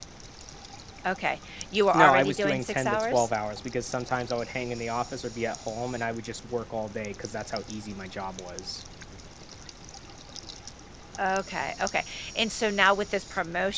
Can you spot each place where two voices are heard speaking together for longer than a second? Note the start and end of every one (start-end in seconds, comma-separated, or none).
1.9-3.3